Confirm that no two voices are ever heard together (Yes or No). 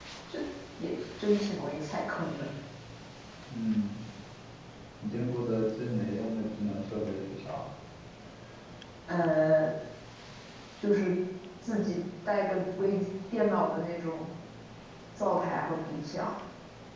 Yes